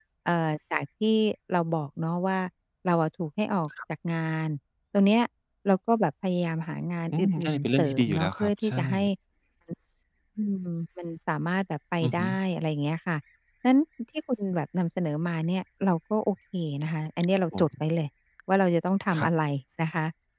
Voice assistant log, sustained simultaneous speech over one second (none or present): present